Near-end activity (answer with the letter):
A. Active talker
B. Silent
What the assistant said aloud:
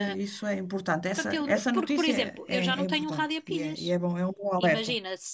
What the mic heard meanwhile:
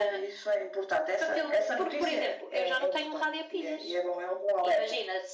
B